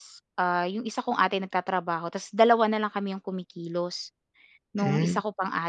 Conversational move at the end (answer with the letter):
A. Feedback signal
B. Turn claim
A